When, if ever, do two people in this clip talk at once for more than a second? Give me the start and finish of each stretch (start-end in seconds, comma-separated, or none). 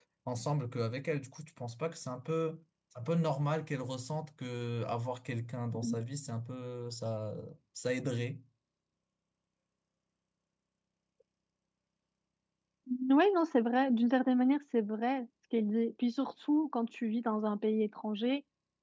none